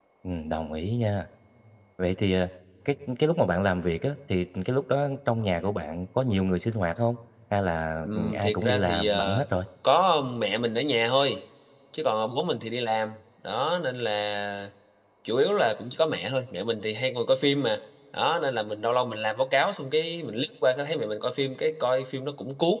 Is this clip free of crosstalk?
No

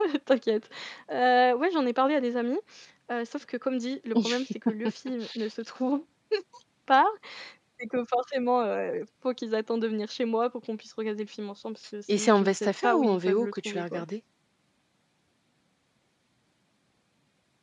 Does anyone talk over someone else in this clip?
Yes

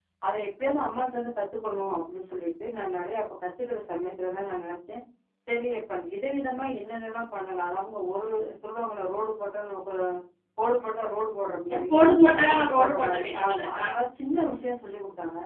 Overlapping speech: Yes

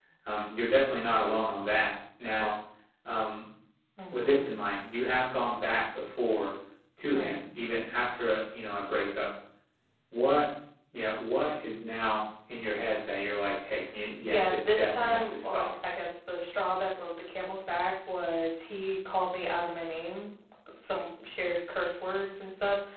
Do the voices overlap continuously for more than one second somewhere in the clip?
Yes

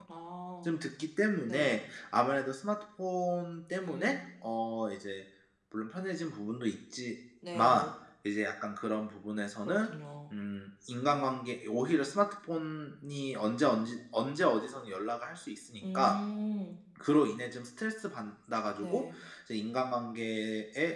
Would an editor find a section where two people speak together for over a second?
No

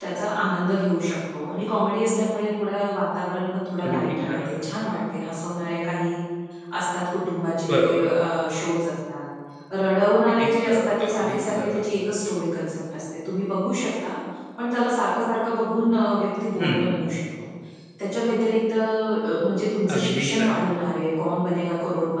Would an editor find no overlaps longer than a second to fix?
No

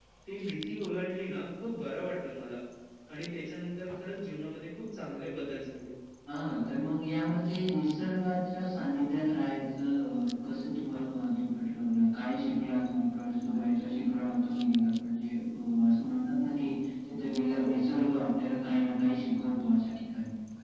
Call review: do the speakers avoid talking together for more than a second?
Yes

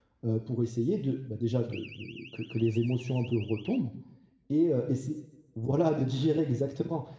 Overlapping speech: No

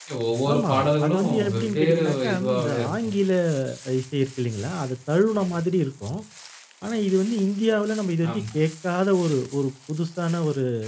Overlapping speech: Yes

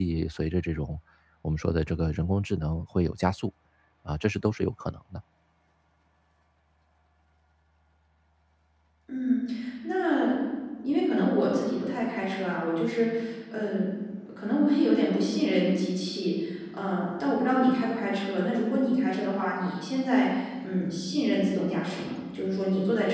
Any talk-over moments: No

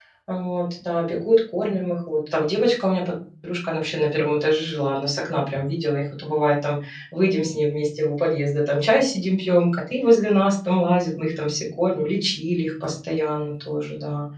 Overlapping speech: No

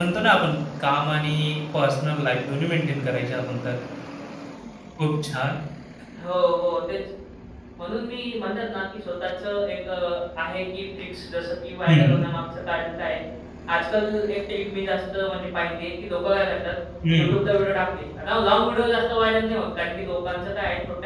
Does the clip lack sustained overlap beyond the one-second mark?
Yes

